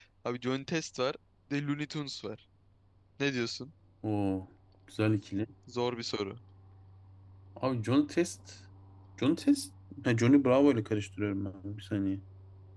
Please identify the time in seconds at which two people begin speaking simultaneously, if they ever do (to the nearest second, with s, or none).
none